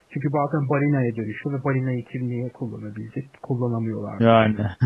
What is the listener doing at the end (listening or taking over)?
listening